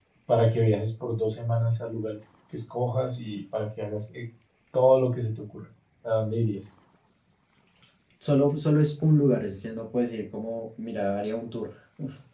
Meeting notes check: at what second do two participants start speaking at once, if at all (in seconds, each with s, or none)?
none